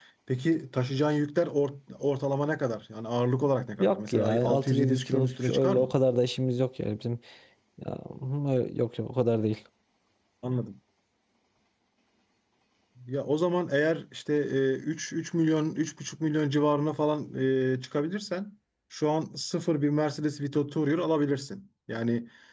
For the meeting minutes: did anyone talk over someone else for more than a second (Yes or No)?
Yes